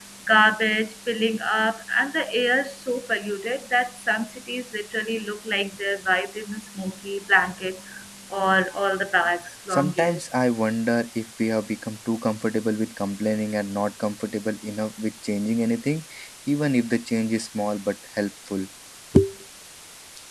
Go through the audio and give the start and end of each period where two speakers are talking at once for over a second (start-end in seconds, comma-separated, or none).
none